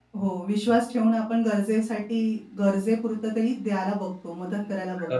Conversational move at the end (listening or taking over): taking over